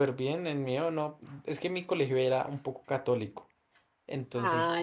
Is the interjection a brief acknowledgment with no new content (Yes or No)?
Yes